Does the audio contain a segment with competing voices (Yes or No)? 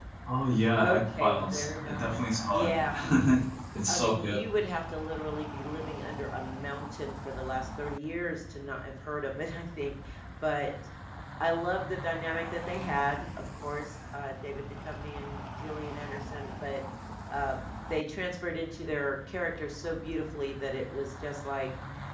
Yes